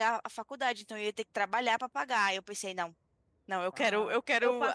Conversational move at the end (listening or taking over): taking over